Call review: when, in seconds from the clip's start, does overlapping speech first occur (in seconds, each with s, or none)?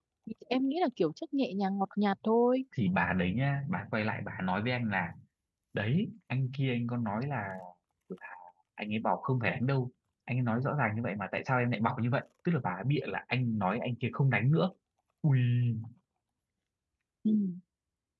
none